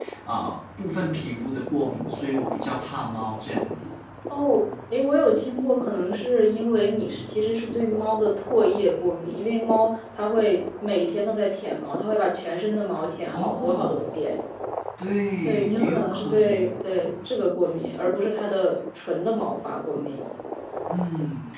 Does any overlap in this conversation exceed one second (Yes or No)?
Yes